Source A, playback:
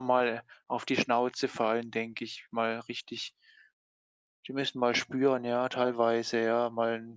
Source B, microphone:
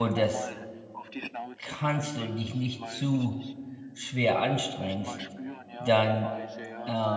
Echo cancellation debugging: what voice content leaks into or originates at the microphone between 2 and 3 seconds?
both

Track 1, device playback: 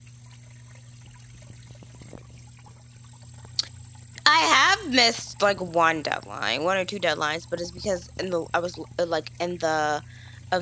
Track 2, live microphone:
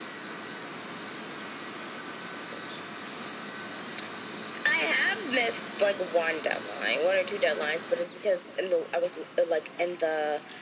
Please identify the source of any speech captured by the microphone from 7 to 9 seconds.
echo only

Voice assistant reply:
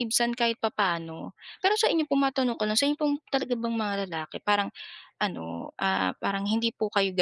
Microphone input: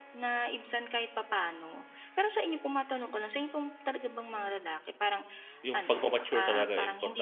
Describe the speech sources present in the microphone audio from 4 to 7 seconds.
both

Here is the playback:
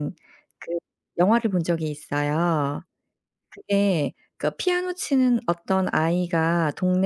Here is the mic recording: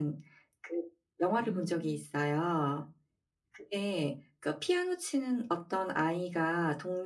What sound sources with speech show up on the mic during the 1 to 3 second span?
both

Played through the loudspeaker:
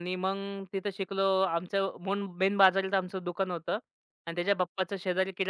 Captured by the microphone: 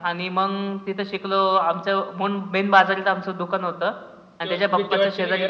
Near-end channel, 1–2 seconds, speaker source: echo only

